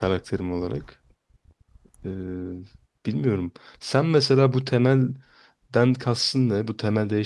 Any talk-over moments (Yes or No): No